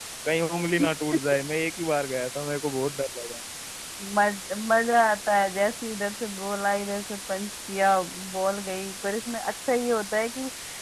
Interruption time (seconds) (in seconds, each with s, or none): none